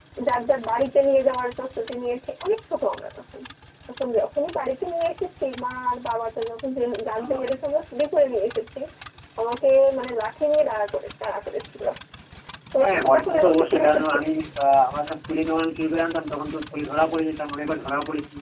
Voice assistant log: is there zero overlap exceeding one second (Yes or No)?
No